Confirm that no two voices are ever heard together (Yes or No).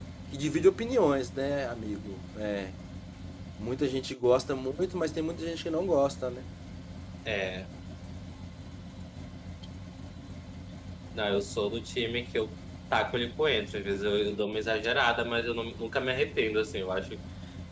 Yes